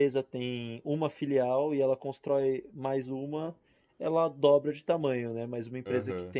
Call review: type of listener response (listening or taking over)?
listening